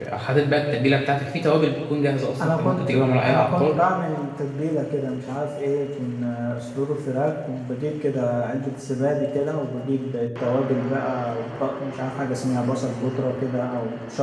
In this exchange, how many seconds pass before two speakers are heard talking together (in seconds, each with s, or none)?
2.4 s